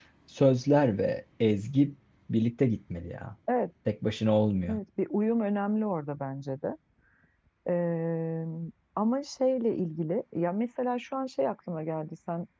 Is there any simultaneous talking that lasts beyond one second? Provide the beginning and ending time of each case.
none

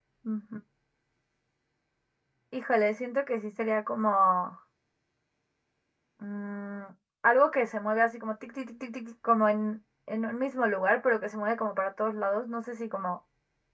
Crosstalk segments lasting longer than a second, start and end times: none

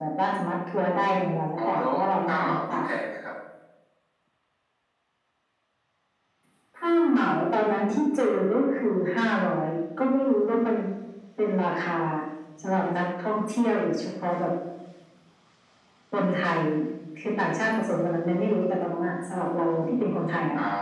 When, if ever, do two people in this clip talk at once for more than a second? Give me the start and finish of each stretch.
1.6-2.8

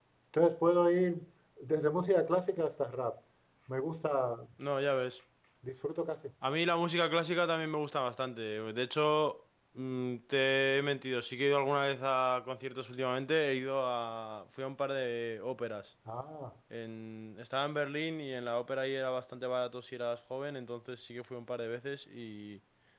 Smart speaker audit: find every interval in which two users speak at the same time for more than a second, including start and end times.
none

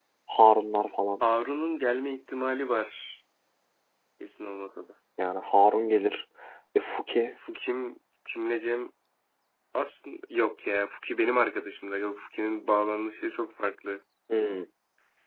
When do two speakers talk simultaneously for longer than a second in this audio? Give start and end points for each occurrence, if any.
none

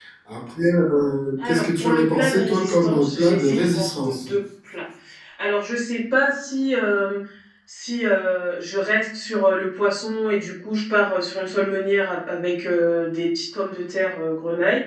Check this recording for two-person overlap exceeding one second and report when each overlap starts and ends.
1.4-4.3

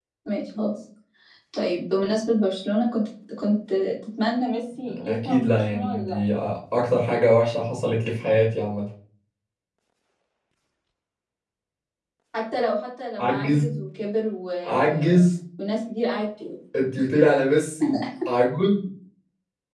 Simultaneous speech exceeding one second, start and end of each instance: 4.9-6.2

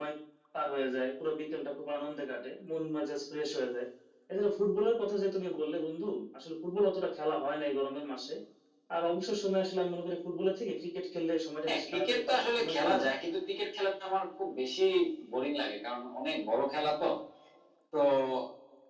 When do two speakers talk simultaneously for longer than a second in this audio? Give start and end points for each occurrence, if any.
11.7-13.2

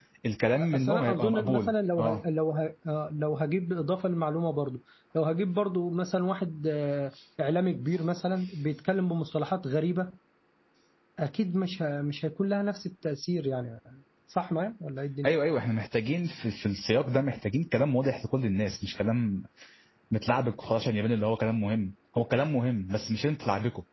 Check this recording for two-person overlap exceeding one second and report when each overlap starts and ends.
0.6-2.2

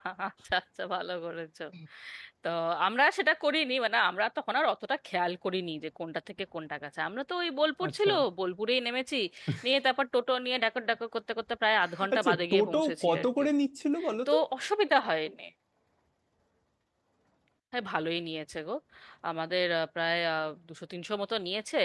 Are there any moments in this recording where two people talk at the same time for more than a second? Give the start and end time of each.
12.1-13.4

